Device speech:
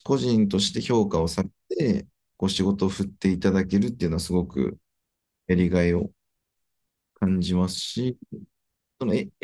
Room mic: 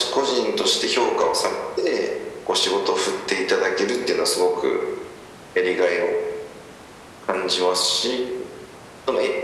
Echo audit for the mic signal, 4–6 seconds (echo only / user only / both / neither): echo only